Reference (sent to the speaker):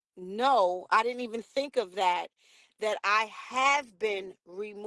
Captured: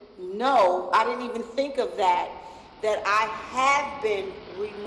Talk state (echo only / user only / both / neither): echo only